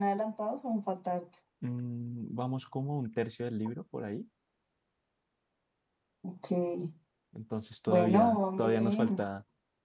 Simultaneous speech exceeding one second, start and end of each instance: 7.9-9.3

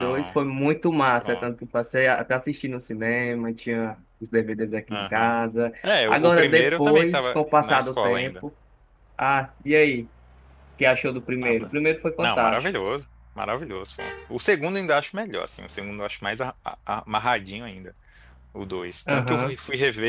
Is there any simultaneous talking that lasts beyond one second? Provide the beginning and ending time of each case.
6.1-8.3

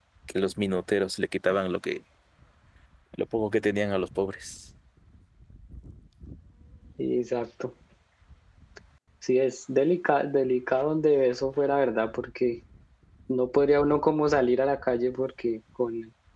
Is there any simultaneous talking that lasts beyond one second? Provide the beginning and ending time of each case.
none

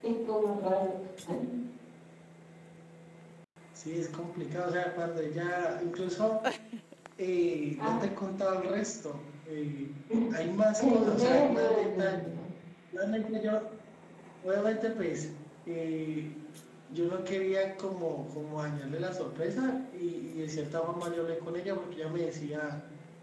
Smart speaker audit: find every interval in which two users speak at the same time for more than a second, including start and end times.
10.8-12.4

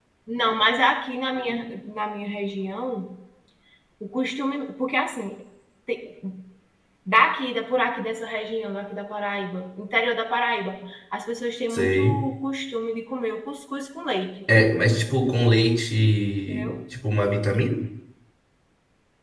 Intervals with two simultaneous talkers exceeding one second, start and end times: none

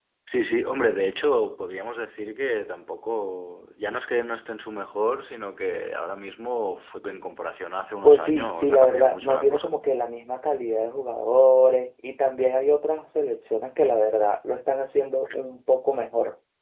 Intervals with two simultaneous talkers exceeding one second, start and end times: 8.0-9.8

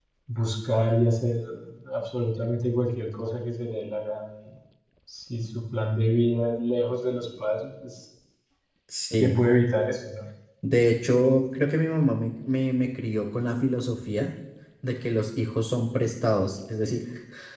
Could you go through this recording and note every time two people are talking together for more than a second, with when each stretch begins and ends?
none

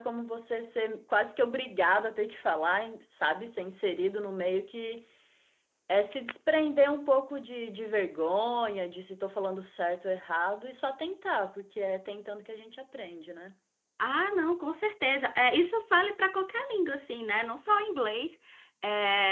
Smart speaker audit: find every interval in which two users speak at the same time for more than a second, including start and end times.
none

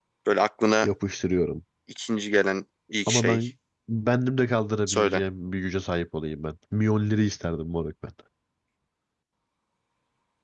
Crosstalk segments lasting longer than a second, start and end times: none

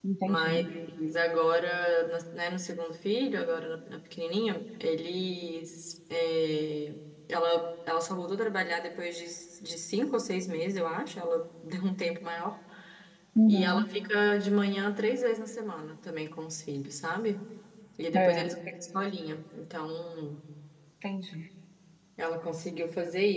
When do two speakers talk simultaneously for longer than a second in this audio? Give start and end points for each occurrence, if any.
none

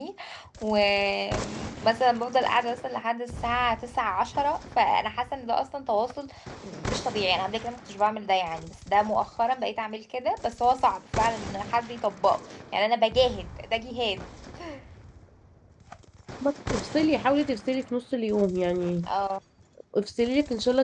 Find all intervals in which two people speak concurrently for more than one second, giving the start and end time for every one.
none

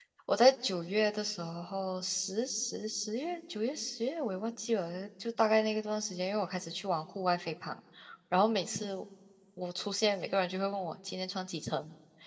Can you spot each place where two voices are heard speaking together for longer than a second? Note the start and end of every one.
none

